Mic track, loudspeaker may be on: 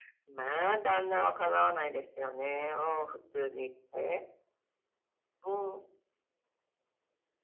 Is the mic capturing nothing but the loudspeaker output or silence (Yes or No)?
Yes